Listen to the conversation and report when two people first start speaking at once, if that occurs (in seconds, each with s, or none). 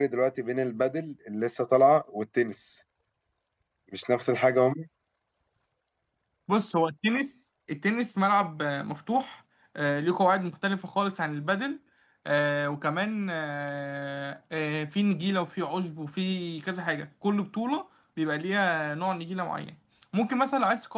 none